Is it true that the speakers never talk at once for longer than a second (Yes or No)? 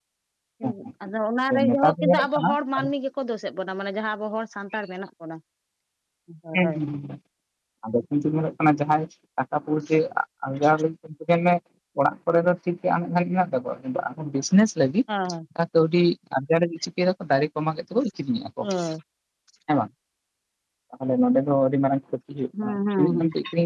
No